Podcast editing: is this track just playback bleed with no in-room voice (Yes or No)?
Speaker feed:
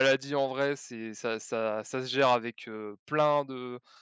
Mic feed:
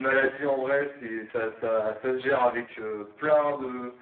Yes